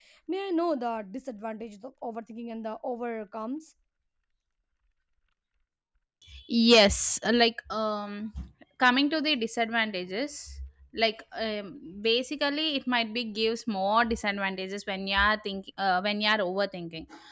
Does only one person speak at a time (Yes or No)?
Yes